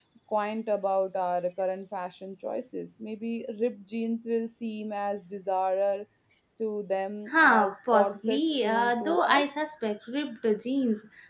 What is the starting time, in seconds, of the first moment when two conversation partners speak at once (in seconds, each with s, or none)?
7.3 s